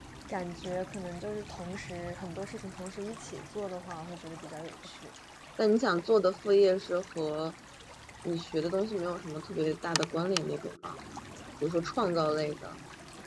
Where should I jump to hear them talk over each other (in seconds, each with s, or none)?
none